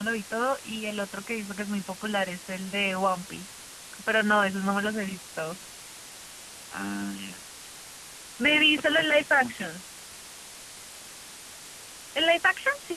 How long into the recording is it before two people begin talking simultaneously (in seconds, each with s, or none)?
8.4 s